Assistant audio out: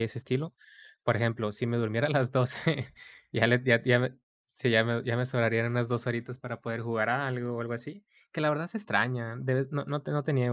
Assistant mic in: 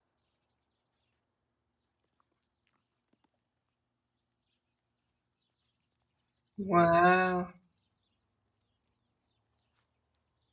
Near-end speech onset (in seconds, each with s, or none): 6.7 s